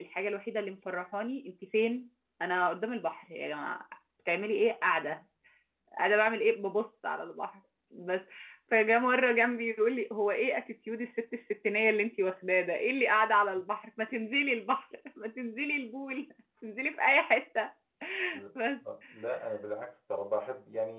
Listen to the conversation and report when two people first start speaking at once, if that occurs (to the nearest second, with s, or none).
none